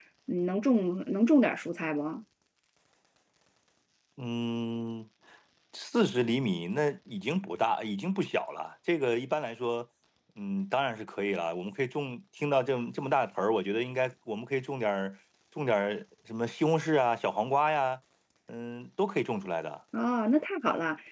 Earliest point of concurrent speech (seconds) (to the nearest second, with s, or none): none